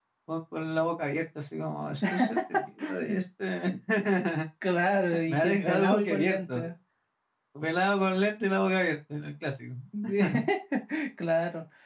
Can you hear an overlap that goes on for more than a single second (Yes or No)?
Yes